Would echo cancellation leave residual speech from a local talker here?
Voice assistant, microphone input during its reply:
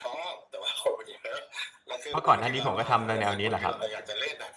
Yes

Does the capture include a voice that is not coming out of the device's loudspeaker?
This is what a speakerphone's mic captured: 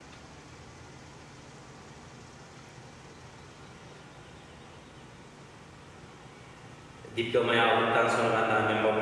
Yes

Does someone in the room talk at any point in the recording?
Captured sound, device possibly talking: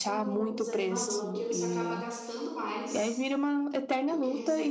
Yes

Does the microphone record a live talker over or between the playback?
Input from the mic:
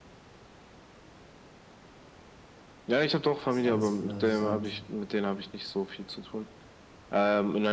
Yes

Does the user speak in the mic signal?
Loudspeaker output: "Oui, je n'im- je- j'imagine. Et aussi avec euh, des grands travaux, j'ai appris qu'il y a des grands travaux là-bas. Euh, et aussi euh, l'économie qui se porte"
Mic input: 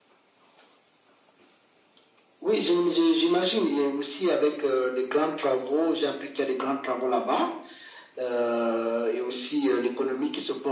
No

